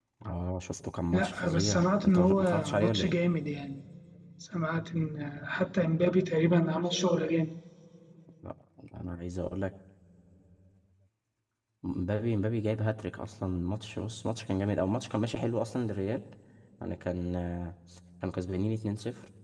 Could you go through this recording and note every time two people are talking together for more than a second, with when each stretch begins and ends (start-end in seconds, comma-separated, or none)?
1.1-3.1